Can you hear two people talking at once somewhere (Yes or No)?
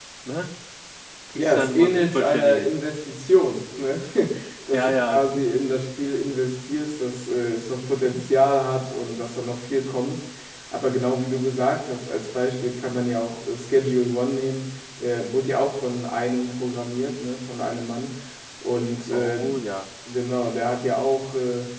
Yes